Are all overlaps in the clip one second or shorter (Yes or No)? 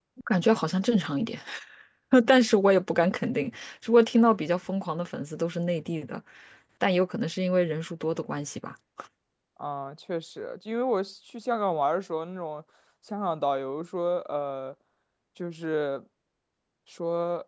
Yes